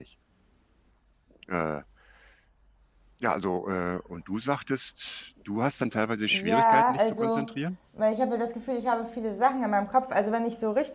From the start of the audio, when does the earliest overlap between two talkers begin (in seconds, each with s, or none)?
6.3 s